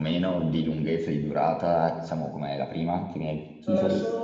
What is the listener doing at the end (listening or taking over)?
taking over